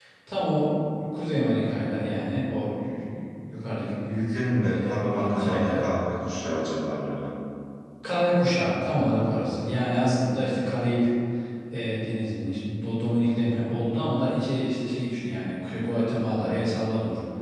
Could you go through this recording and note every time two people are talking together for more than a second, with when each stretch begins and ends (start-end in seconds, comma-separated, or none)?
4.3-5.9